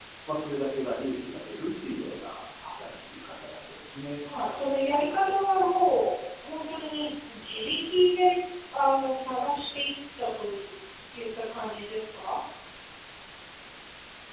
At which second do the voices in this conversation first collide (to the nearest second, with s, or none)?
none